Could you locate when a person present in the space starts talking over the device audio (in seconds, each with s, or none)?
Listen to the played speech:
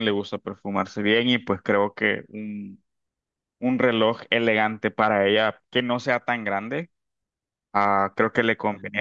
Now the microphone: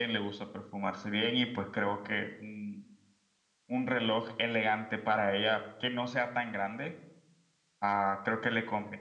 none